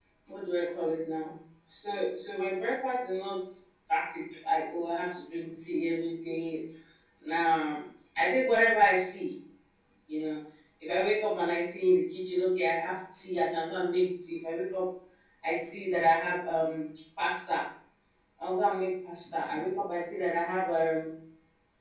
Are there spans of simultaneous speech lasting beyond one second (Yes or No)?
No